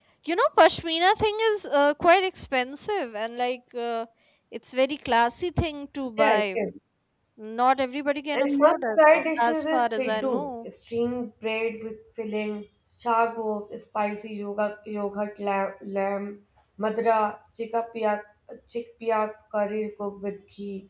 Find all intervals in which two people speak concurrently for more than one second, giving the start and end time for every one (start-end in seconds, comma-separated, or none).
8.3-10.3